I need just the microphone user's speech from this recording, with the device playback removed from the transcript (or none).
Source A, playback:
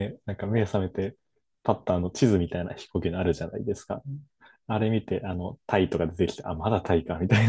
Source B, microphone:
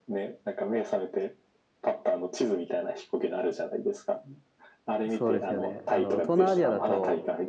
そうですよね。あの、東南アジアだと、